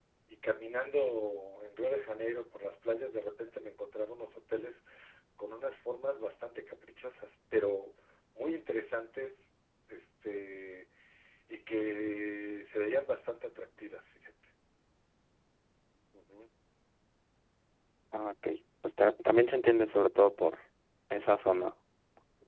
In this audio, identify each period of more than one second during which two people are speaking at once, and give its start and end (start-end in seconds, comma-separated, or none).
none